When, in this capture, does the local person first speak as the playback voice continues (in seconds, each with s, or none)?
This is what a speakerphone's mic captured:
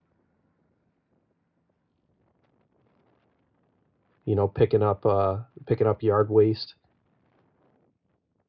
4.2 s